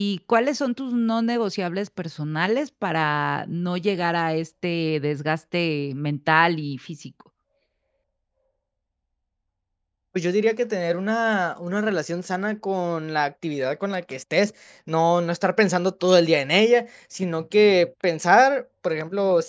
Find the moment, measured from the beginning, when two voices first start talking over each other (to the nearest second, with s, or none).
none